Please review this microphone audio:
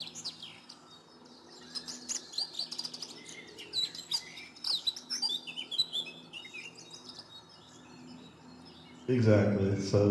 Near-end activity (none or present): present